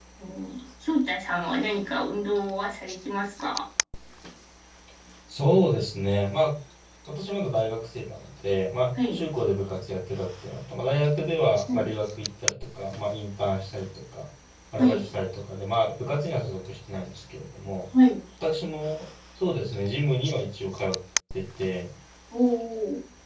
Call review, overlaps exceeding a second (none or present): none